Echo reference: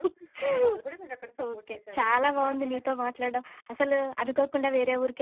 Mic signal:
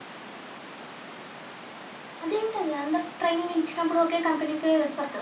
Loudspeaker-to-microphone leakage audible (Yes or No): No